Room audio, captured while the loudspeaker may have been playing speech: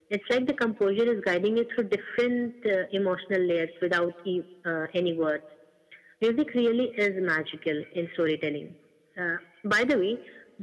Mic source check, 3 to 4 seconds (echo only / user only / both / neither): echo only